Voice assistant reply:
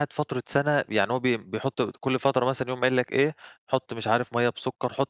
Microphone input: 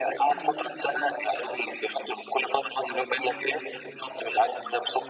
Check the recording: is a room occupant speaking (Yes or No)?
Yes